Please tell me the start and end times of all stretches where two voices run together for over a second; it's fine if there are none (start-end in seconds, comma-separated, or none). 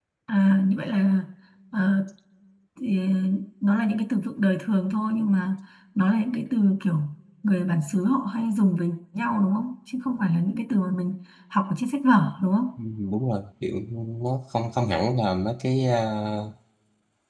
none